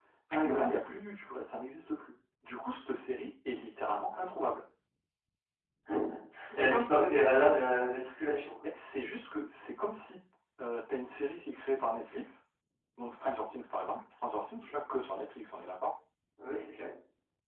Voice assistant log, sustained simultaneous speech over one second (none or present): none